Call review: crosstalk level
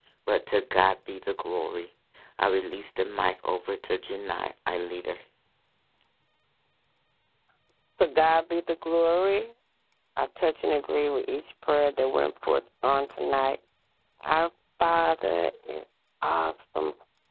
none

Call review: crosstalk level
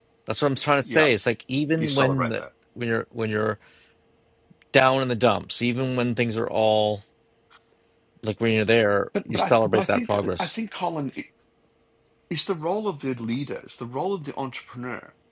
present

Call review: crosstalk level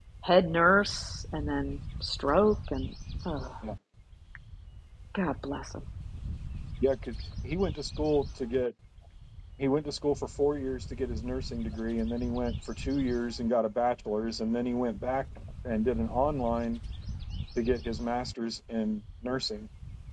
none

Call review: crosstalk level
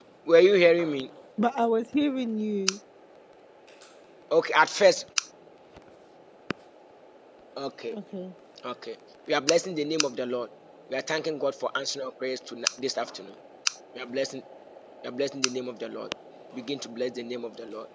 none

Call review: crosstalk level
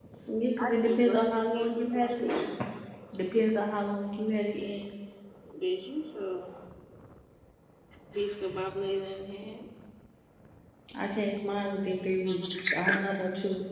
present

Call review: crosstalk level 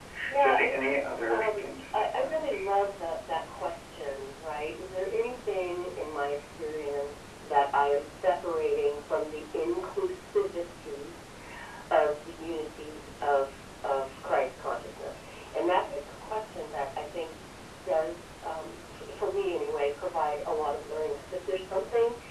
present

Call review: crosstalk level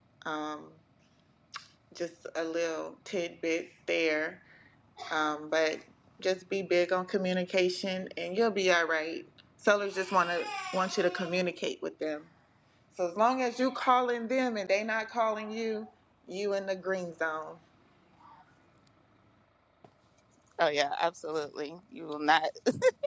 none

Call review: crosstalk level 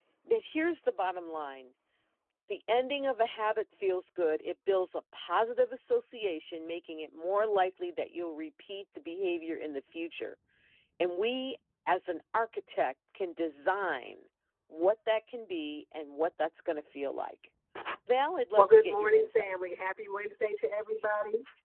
present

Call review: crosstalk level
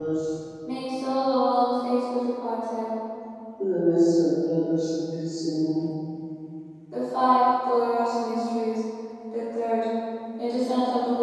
none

